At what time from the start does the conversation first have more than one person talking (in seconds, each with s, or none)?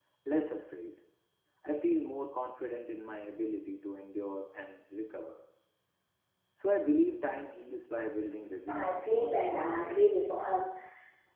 8.7 s